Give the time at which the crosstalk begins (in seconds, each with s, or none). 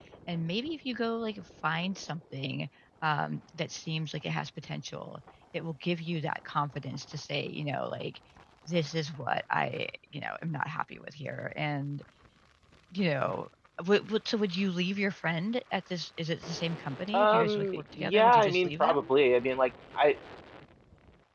17.1 s